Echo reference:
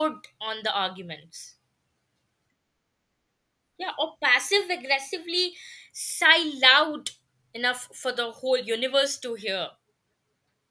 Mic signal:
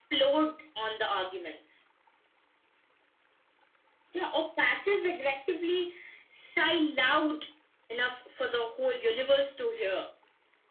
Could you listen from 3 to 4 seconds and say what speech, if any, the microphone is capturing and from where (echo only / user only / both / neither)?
neither